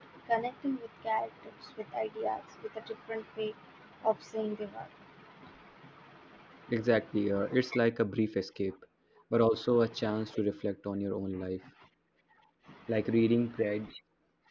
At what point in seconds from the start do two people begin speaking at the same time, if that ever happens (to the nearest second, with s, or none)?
none